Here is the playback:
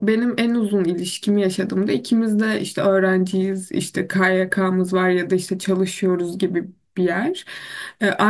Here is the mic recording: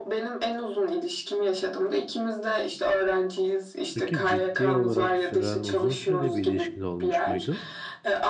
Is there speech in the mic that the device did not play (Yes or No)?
Yes